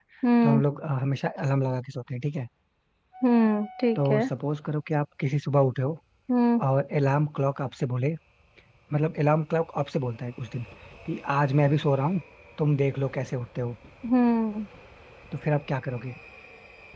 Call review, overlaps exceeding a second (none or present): none